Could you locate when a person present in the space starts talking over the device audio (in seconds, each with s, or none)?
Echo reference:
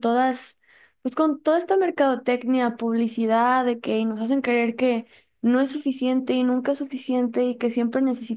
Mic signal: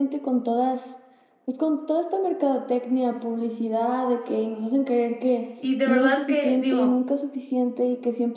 5.6 s